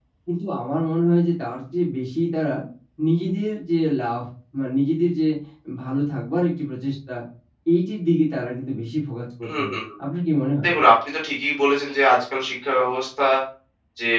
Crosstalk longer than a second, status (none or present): none